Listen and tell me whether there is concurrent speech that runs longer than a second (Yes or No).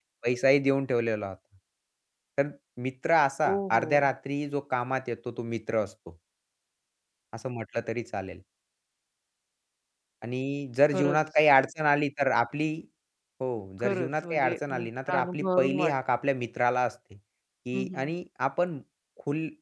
Yes